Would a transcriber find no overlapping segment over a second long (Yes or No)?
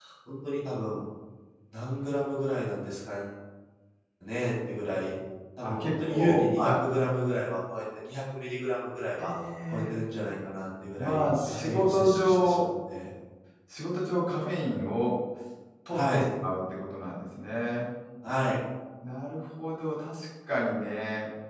No